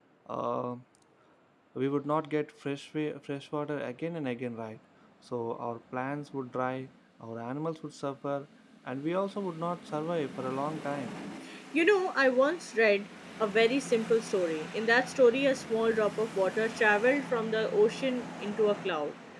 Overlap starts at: none

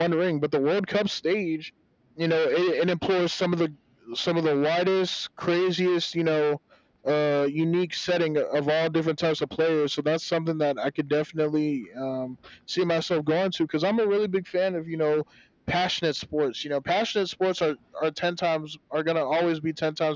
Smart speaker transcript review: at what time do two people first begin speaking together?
none

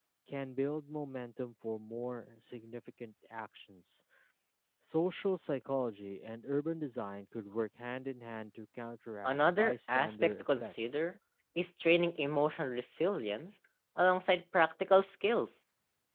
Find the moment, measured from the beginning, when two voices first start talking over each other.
9.2 s

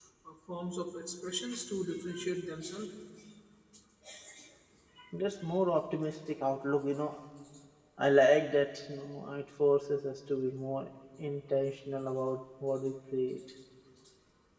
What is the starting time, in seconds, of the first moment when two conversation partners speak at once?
none

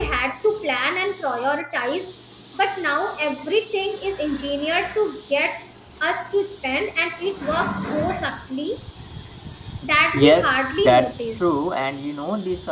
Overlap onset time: 10.1 s

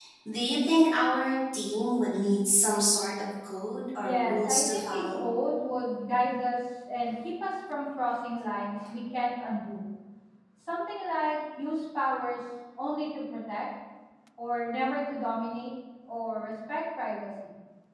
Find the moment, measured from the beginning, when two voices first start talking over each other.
4.0 s

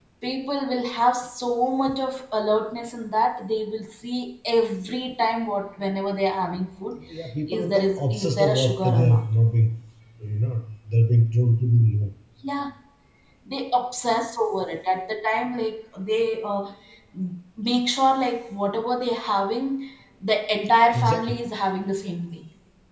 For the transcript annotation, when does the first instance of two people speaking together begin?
7.5 s

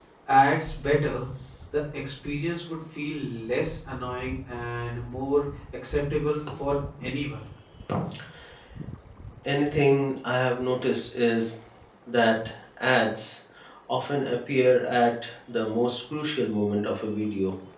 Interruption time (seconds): none

